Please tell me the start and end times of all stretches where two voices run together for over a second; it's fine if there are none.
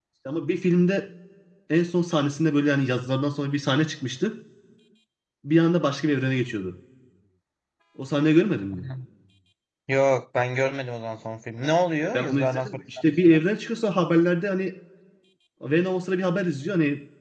12.1-13.4

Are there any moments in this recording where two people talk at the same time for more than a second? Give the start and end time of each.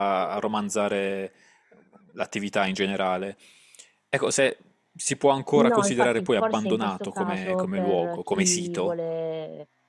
5.6-8.9

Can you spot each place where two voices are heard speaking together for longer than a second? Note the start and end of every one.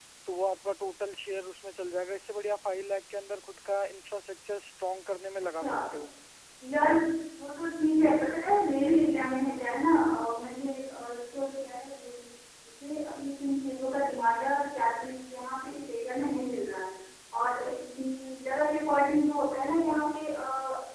none

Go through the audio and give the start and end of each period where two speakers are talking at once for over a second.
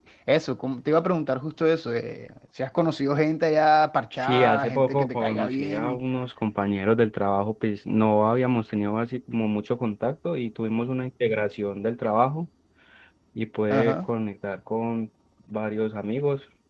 4.2-6.0

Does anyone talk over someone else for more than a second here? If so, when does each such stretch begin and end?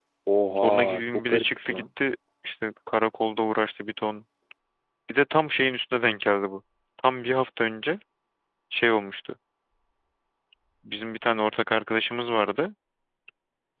0.6-1.8

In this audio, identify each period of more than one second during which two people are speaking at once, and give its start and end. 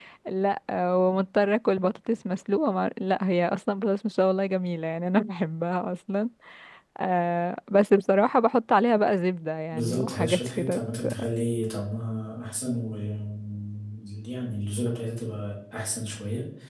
9.7-11.3

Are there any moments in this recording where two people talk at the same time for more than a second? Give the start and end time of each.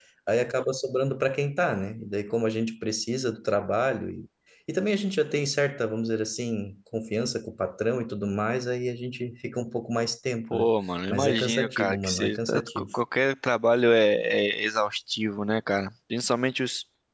11.1-12.8

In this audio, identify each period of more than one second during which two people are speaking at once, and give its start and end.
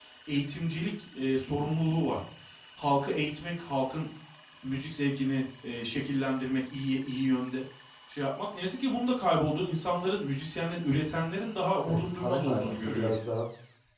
11.8-13.2

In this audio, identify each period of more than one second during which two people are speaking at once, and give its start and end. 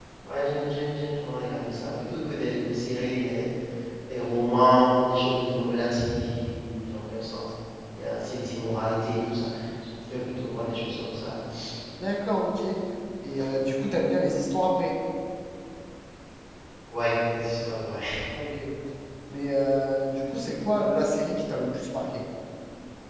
none

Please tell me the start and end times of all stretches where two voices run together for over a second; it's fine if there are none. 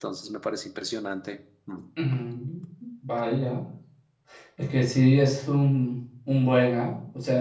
none

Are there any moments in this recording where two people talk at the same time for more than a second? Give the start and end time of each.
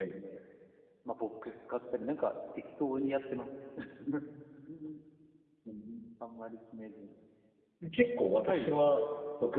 none

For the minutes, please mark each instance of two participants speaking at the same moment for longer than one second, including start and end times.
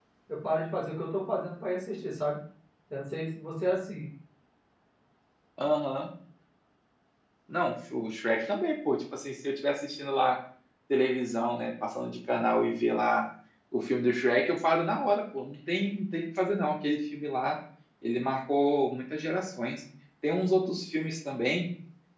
none

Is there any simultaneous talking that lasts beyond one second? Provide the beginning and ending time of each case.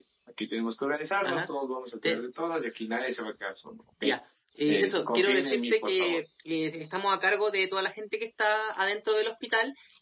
4.7-6.2

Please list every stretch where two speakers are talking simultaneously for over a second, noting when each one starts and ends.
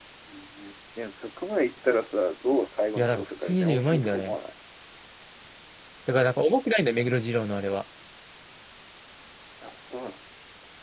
3.0-4.4

